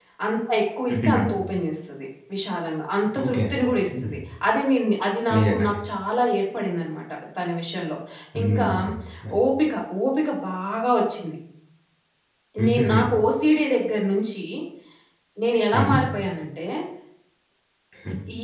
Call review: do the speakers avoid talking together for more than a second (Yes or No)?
Yes